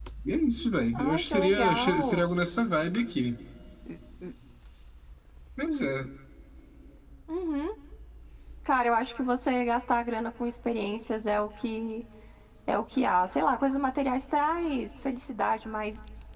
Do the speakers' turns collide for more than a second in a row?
Yes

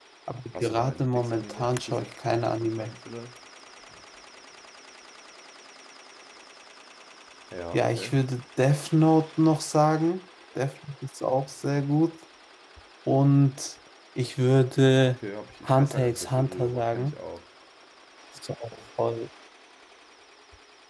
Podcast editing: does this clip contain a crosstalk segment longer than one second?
Yes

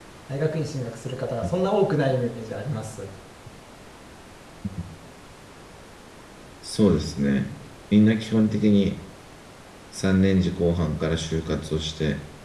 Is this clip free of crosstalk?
Yes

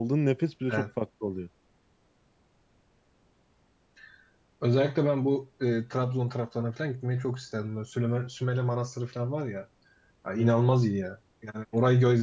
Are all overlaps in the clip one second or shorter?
Yes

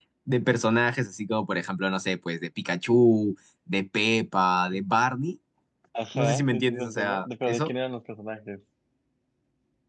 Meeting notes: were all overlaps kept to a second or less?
No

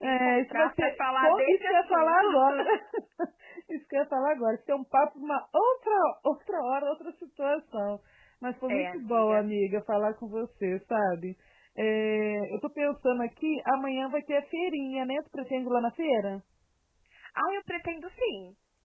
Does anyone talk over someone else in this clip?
Yes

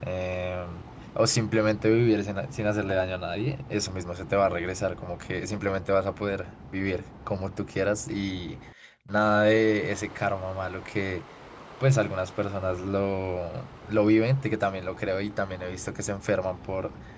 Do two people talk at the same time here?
No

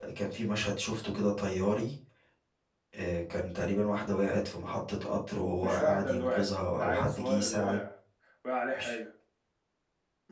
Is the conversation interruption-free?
No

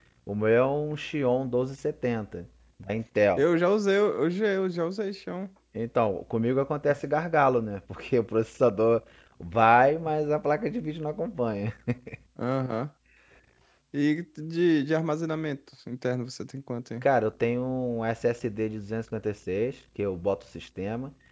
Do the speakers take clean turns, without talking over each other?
Yes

